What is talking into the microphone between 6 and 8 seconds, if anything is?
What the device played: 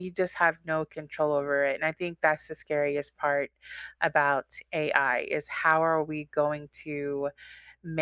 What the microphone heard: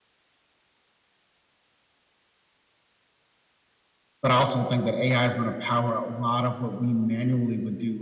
user only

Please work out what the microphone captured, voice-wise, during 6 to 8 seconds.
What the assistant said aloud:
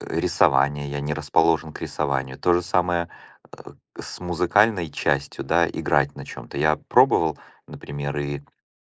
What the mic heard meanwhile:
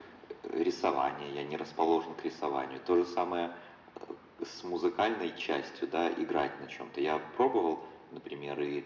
echo only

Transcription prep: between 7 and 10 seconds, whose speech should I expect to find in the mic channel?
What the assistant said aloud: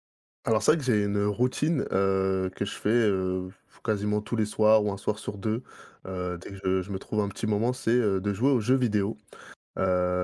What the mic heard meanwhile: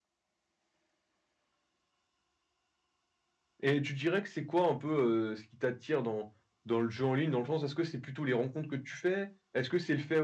user only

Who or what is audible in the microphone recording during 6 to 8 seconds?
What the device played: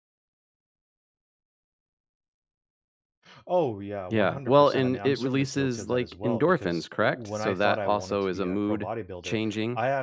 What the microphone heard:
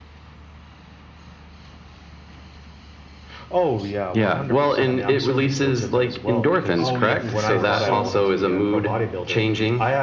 both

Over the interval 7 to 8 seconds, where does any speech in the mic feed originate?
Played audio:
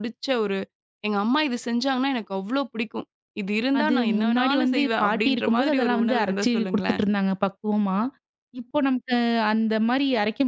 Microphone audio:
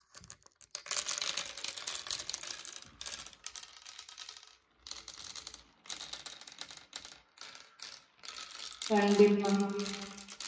neither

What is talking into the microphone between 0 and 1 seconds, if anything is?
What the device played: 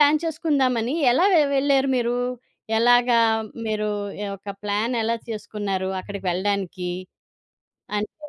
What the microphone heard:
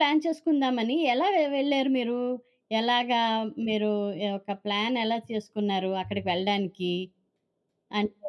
echo only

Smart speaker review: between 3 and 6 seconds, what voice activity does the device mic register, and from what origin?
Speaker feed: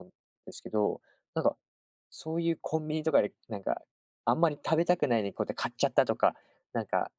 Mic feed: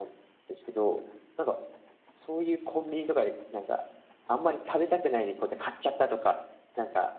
echo only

